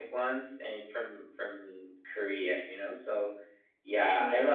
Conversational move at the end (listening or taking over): listening